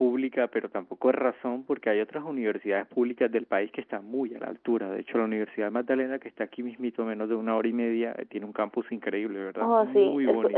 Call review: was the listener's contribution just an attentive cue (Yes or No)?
No